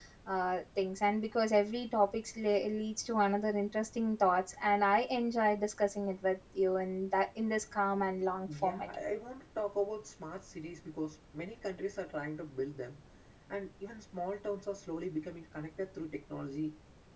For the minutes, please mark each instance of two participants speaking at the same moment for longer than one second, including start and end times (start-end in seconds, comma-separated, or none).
none